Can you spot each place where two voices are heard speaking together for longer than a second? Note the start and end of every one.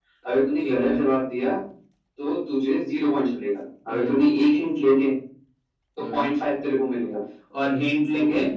none

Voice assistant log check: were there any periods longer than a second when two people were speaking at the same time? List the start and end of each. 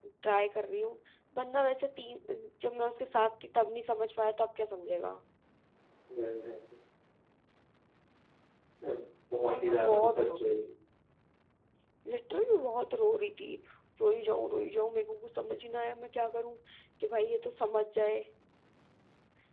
9.4-10.6

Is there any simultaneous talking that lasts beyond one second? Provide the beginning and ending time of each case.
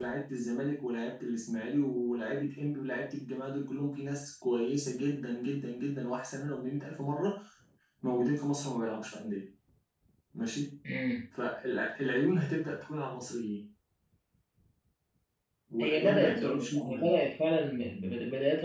15.8-17.1

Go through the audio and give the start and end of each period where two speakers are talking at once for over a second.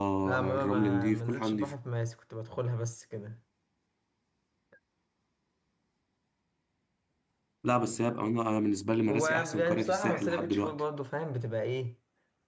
0.5-1.7, 9.1-10.8

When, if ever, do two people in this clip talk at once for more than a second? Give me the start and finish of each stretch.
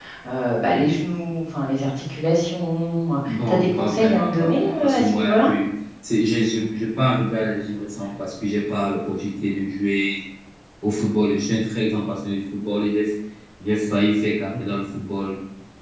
3.3-5.5

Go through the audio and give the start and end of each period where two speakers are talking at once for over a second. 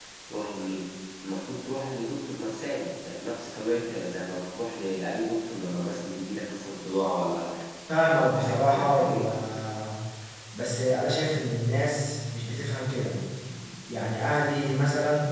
8.0-9.2

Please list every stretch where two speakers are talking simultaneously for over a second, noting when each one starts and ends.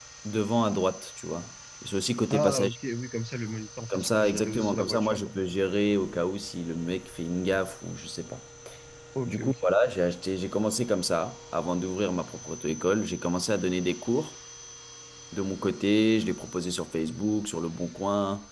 3.9-5.2

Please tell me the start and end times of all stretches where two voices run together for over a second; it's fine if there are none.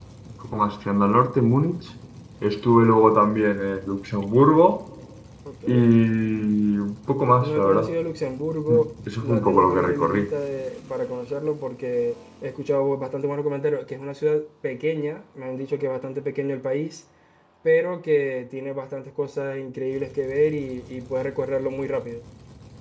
8.7-10.2

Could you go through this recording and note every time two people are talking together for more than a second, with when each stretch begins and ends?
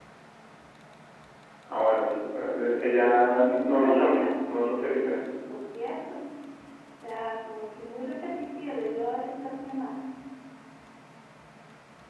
2.9-5.2

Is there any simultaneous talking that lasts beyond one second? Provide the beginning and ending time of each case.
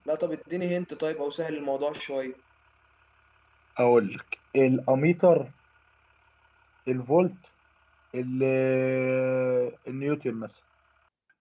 none

